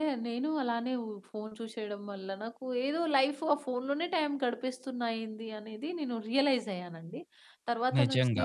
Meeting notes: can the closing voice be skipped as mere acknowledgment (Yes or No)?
Yes